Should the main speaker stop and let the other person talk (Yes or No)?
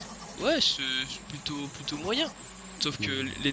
No